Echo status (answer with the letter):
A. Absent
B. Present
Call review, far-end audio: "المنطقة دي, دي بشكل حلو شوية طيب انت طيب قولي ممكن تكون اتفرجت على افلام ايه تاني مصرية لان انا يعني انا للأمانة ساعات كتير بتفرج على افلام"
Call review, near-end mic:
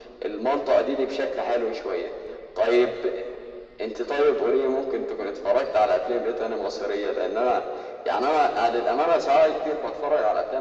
B